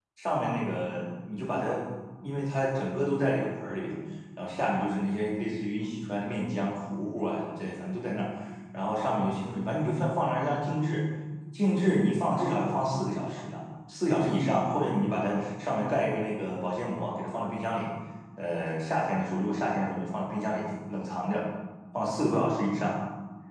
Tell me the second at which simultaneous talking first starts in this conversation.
none

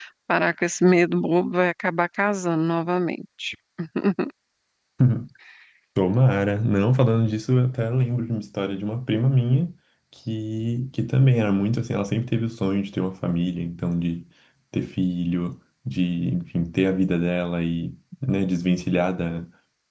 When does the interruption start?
none

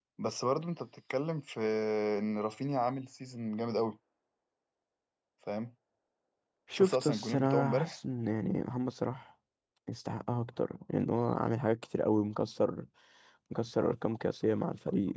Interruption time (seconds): 6.7 s

